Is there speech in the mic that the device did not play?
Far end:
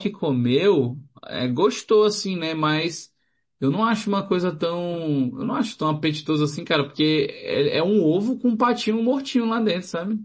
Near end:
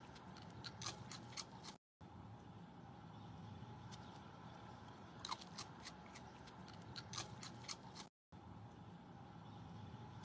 No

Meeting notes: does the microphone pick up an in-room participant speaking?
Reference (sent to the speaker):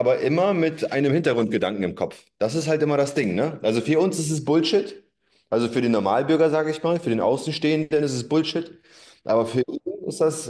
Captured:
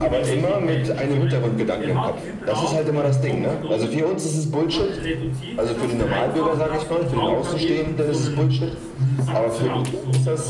Yes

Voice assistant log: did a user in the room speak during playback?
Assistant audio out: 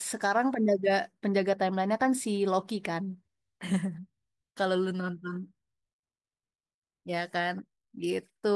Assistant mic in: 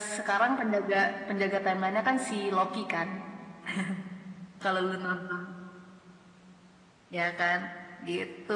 No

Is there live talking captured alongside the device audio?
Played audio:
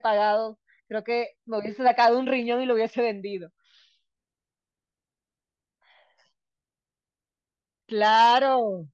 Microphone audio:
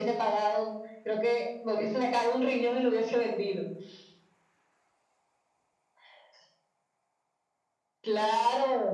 No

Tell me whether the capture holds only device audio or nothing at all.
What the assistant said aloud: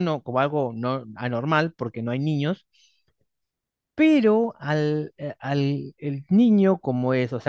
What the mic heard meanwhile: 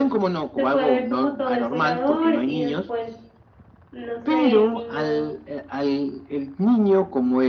No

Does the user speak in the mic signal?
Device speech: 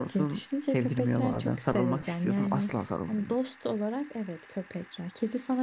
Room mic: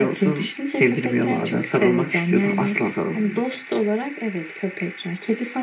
No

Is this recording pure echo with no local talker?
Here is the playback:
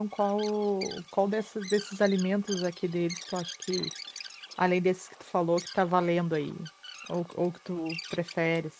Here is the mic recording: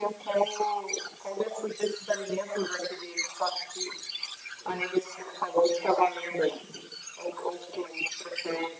Yes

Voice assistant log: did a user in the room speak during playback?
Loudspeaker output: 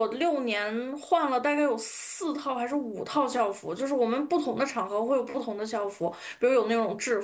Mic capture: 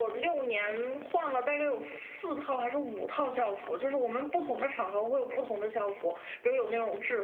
No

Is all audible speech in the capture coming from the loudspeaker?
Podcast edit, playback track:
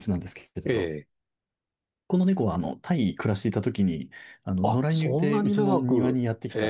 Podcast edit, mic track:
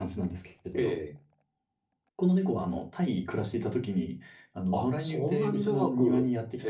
Yes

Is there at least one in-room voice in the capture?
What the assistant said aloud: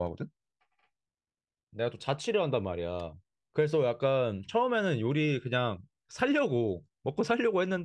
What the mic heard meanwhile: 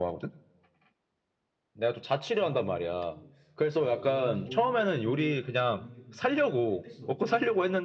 Yes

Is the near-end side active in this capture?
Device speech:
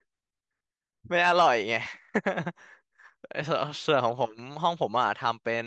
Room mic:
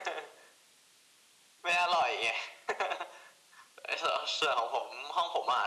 No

